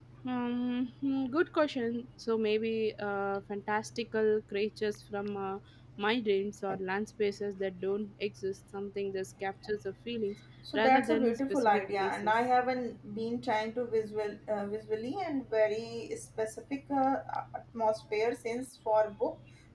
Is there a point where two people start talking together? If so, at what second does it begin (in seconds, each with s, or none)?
10.7 s